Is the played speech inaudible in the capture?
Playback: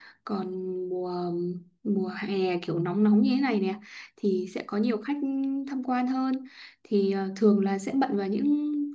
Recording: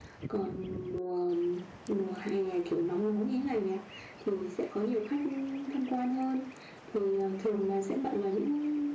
No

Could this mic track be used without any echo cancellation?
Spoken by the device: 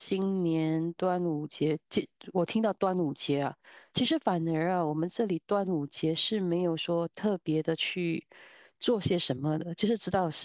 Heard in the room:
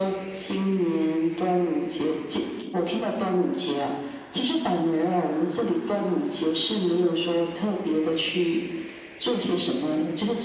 No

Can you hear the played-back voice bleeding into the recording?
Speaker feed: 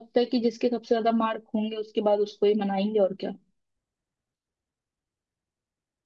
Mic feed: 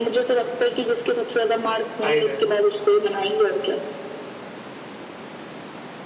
Yes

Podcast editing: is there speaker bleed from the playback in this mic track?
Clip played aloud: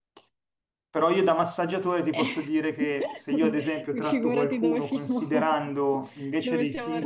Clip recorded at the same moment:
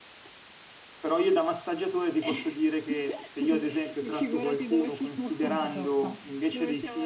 Yes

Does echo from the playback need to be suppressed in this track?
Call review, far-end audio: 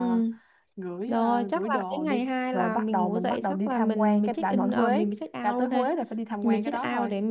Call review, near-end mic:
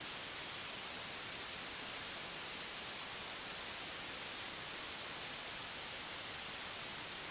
No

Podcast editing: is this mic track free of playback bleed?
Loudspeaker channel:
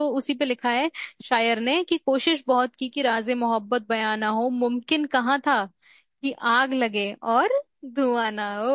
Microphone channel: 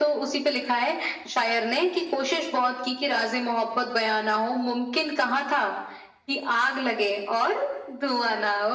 No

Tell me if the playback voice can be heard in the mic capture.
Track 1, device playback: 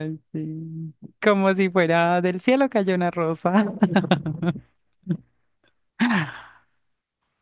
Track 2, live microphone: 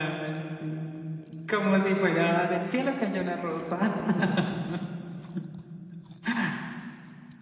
Yes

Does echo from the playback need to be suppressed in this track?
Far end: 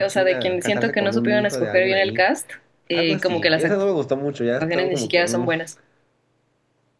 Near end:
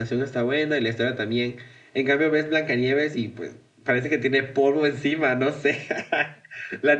No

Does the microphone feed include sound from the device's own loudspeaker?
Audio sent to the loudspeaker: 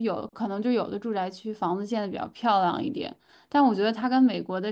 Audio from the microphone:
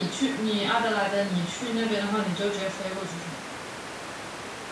No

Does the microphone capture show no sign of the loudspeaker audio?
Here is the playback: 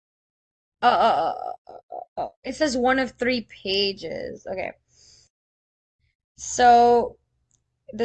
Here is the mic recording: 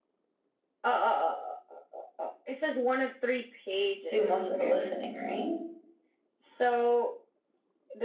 No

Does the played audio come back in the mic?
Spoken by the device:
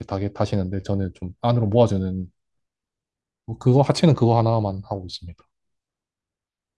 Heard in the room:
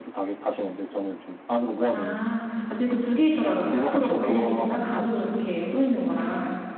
Yes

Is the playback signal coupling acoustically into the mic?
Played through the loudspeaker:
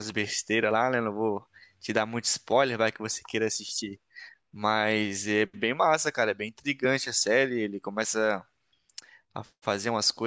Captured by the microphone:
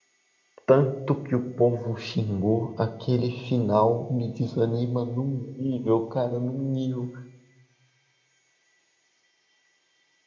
No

